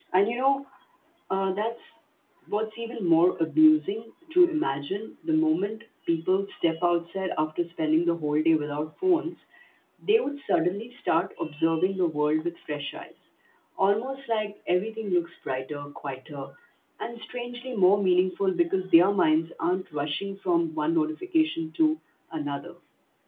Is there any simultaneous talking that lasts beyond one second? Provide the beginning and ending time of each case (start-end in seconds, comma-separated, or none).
none